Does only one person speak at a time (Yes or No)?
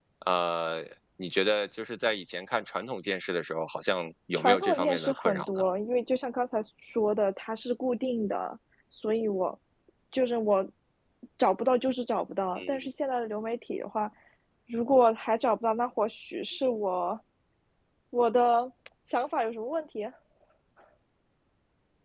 No